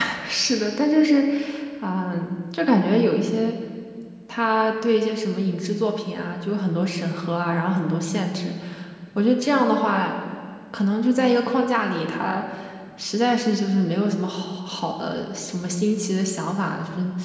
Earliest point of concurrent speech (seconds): none

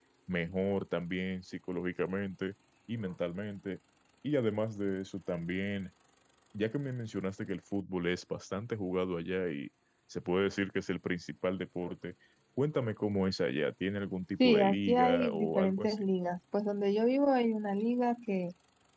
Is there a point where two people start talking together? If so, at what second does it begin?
14 s

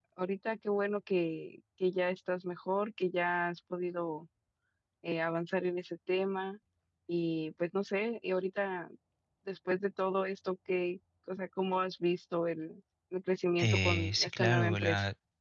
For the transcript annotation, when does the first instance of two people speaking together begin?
14 s

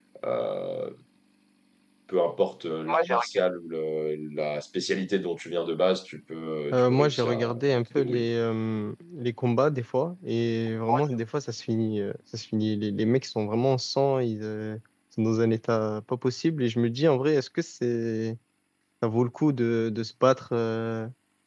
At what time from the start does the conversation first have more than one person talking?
7 s

